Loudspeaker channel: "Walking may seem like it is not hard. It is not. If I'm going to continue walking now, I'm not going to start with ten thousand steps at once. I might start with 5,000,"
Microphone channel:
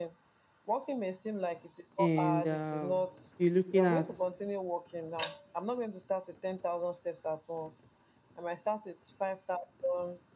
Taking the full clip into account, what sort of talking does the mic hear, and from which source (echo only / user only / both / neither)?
both